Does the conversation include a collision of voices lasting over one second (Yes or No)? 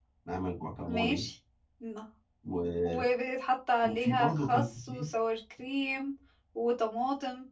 Yes